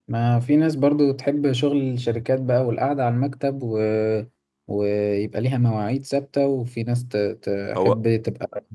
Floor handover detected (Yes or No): No